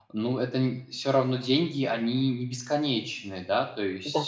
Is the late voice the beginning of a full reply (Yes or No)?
Yes